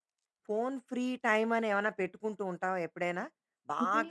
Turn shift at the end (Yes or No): No